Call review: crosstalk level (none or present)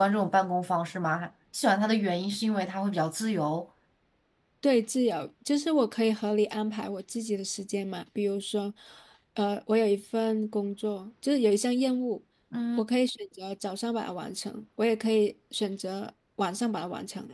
none